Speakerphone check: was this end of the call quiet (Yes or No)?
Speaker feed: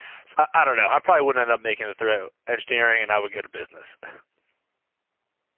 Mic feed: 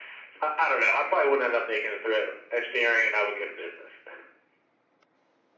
Yes